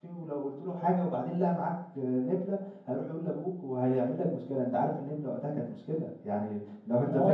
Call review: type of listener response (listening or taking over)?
taking over